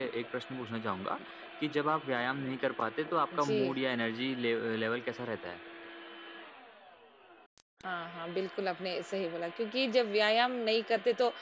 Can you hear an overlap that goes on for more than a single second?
No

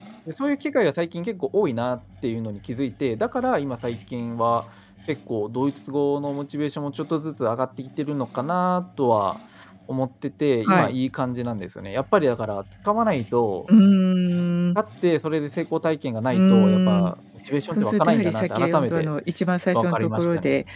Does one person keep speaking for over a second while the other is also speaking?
Yes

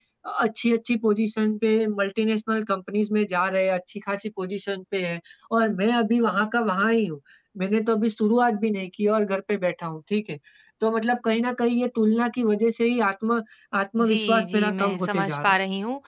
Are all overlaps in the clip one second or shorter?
No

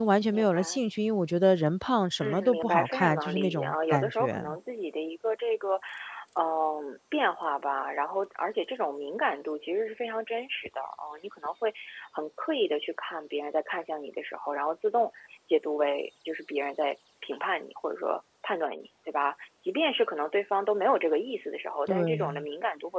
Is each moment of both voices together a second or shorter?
No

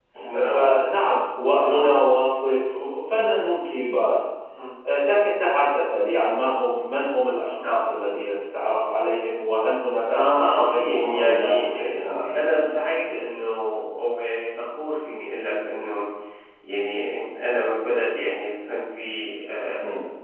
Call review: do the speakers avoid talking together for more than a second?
No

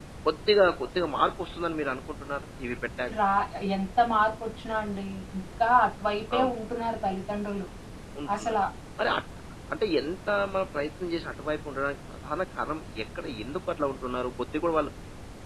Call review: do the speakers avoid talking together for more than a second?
Yes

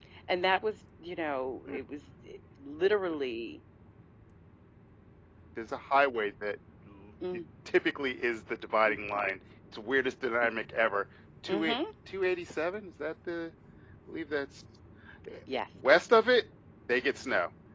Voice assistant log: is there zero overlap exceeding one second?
Yes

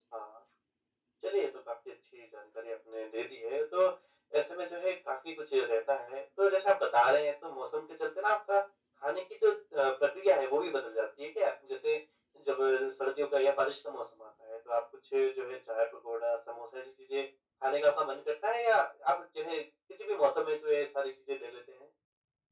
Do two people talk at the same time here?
No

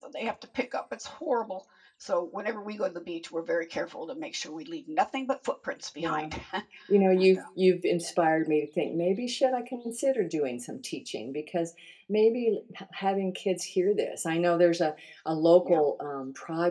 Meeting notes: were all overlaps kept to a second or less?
Yes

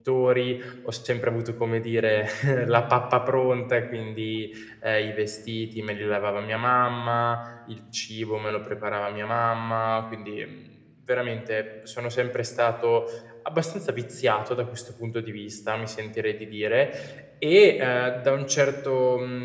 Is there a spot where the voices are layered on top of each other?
No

